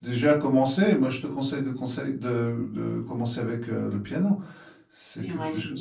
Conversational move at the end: taking over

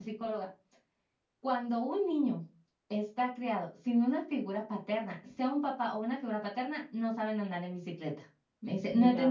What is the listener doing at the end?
listening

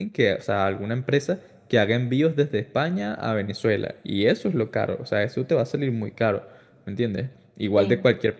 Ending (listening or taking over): listening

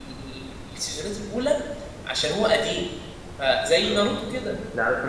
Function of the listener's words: taking over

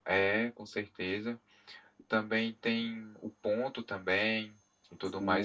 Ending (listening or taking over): taking over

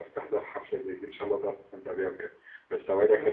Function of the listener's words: listening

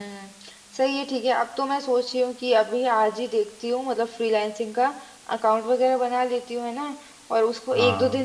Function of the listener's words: listening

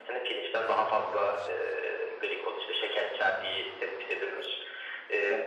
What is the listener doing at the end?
listening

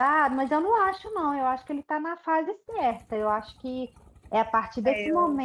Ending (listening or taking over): listening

